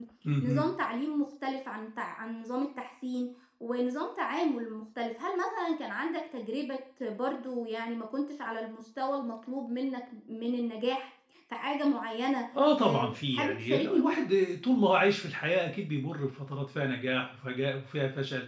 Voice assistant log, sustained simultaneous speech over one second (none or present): present